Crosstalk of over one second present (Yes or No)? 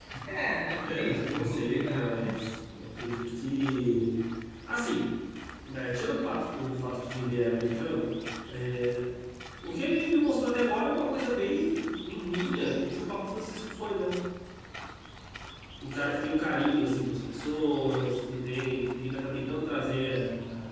Yes